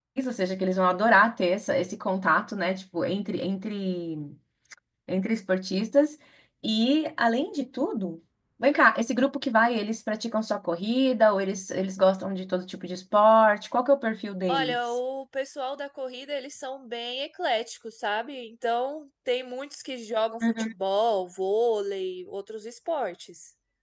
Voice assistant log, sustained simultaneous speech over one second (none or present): none